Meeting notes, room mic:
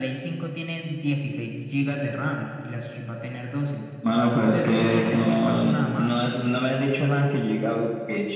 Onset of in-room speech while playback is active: none

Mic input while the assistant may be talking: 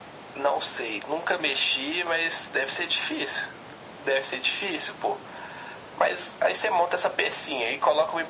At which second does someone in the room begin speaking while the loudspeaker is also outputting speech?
none

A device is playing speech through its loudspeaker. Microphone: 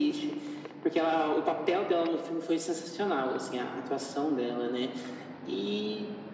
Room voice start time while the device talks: none

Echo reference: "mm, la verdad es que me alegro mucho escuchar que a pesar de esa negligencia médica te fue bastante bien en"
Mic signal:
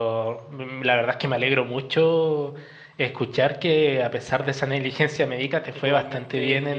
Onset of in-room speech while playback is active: 5.7 s

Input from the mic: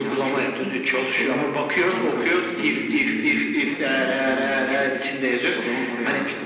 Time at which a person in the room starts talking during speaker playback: none

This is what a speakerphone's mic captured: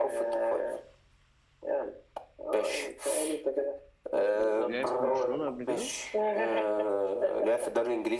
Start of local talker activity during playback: 4.6 s

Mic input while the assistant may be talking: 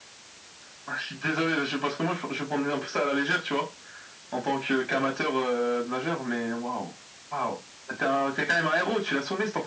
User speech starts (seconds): none

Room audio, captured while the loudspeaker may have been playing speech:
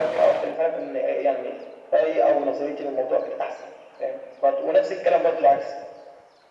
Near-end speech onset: none

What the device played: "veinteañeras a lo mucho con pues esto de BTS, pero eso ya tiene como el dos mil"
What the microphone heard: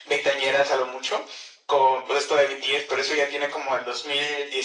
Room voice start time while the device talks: none

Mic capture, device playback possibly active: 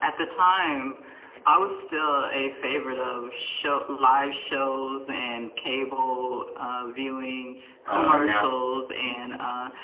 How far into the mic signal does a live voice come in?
7.9 s

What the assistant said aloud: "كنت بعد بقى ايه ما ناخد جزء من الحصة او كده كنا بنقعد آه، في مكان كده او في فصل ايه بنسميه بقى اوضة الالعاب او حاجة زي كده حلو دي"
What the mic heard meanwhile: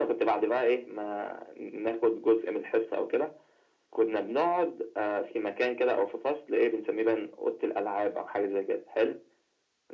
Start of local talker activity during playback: none

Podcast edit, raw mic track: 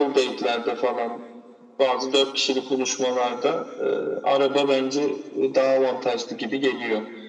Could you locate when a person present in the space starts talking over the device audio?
none

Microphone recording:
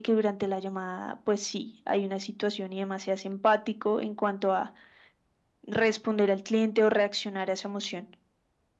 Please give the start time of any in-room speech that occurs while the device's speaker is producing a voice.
none

